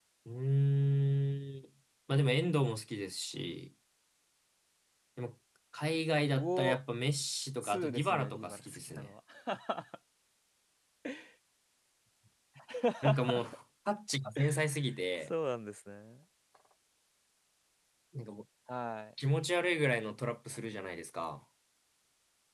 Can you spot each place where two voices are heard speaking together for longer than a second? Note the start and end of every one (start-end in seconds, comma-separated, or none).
7.7-9.1